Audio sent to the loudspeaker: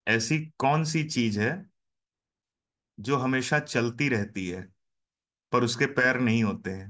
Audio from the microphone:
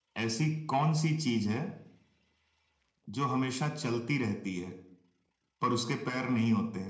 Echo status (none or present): present